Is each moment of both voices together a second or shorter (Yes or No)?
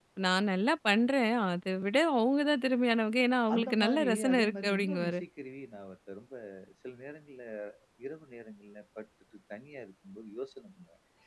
No